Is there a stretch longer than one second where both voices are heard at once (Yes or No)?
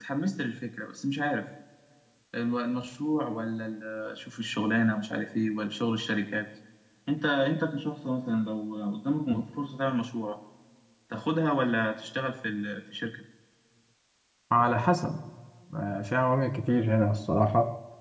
No